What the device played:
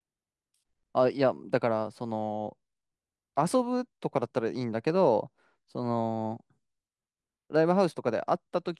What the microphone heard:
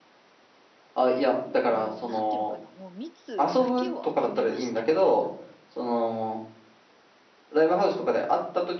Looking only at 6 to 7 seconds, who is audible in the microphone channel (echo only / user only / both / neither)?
echo only